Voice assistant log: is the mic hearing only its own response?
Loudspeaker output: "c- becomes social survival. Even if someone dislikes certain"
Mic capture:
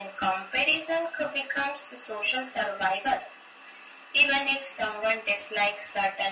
Yes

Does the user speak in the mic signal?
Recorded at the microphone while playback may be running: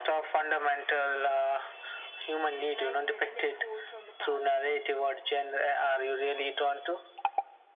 Yes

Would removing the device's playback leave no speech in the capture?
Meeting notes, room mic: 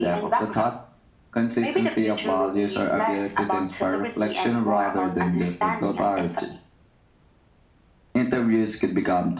Yes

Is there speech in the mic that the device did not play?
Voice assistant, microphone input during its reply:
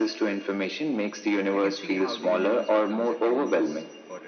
Yes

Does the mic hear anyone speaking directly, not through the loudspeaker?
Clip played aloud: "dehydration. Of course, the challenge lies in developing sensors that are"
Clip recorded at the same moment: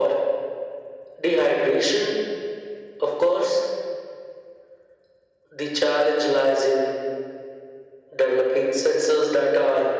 No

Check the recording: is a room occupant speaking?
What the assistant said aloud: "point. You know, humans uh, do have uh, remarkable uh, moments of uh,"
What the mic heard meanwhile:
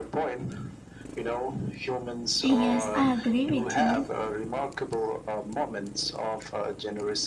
Yes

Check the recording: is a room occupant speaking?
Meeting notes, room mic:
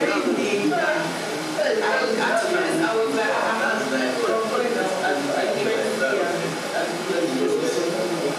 Yes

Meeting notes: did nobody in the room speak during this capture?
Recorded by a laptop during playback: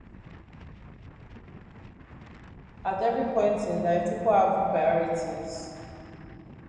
No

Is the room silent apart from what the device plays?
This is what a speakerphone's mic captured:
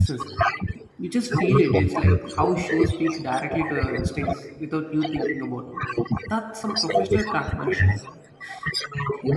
No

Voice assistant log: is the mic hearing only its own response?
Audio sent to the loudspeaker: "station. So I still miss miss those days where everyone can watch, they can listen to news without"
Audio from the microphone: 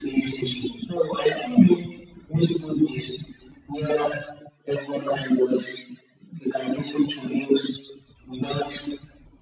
Yes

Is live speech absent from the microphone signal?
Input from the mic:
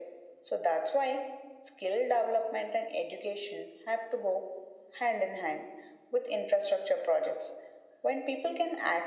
Yes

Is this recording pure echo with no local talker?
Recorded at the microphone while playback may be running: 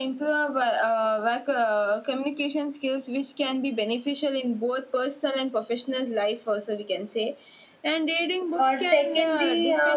No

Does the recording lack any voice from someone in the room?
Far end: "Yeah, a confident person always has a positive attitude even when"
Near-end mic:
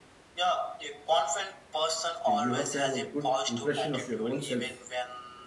No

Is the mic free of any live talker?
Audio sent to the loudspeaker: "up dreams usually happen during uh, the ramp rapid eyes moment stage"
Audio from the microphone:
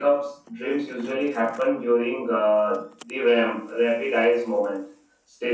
Yes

